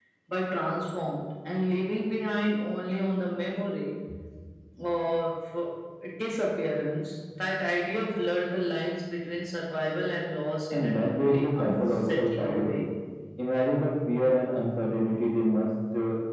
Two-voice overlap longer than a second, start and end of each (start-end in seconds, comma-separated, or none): 10.7-12.8